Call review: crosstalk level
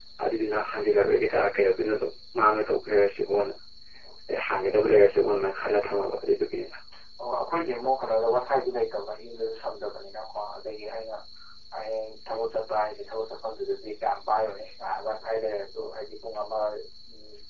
none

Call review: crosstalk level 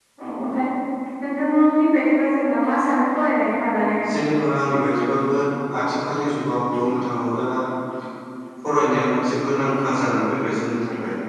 none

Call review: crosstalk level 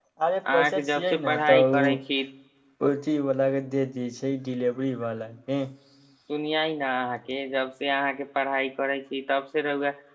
present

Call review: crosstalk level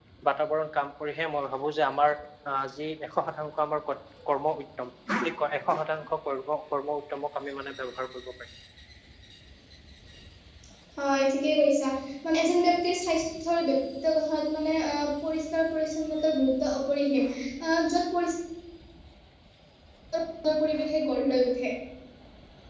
none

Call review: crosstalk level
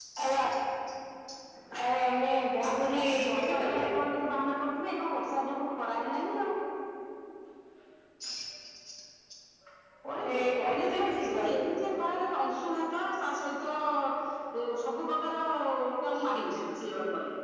present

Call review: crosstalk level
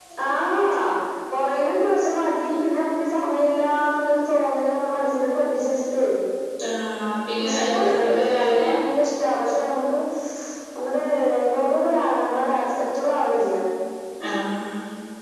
present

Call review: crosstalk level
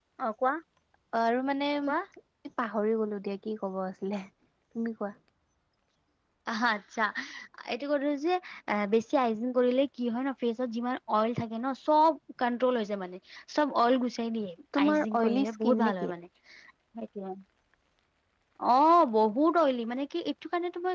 present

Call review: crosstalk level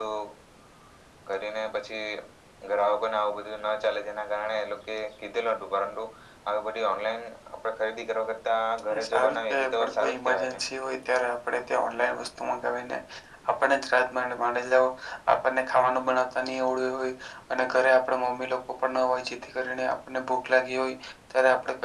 present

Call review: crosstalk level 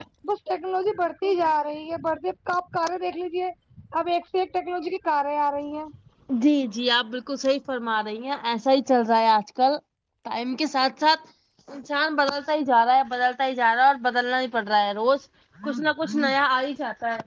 none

